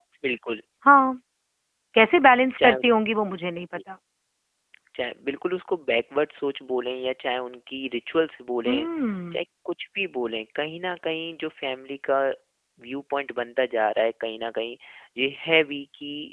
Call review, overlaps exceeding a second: none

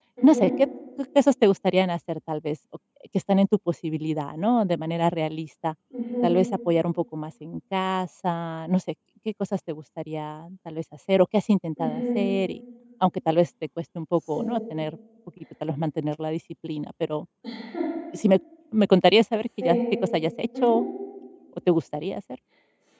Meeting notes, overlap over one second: none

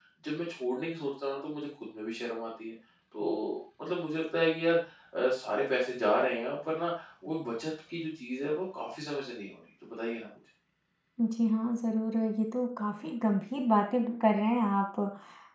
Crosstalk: none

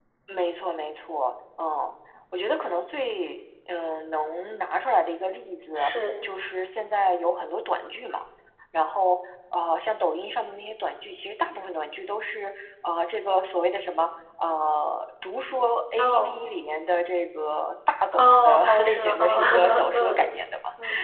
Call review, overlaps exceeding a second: present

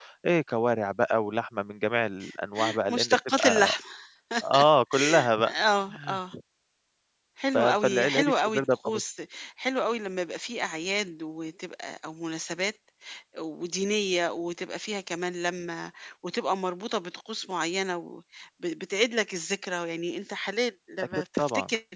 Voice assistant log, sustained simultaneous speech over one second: present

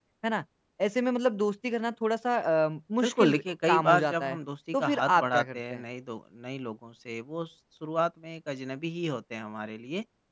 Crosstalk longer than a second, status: present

